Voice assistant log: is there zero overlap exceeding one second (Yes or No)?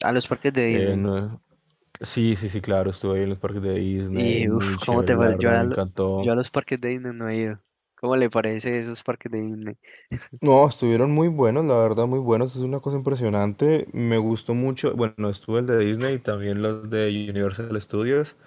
No